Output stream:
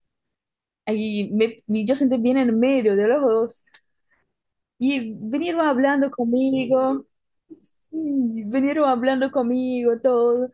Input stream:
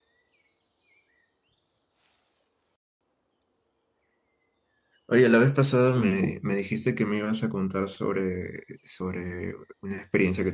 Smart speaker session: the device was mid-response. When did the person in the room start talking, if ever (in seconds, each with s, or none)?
5.1 s